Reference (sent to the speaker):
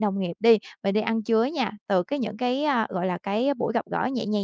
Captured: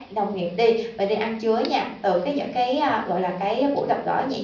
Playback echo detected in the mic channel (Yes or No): Yes